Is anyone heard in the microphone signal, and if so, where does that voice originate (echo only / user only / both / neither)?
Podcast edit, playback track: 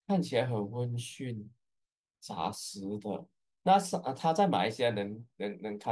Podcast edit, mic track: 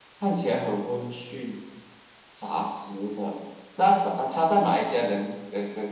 echo only